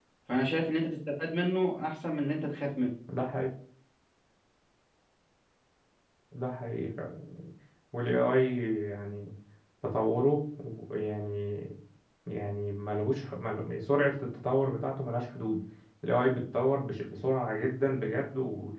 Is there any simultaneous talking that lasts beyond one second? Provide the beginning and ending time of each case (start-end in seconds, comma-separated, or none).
none